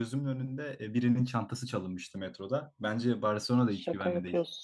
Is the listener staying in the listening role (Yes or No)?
No